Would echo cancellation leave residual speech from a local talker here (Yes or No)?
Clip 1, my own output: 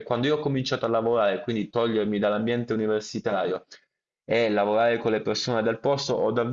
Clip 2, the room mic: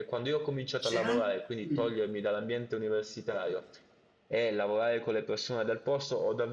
Yes